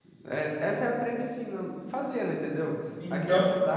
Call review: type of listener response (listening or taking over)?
listening